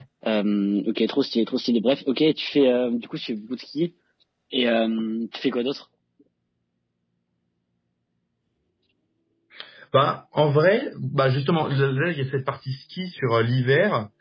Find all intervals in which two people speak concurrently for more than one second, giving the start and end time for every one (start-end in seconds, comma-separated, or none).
none